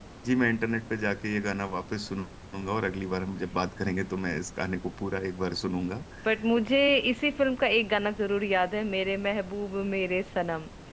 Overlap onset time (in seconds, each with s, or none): none